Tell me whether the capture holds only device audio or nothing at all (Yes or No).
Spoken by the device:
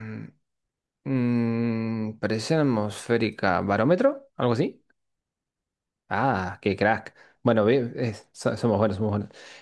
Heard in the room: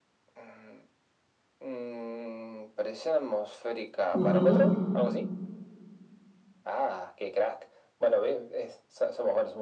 No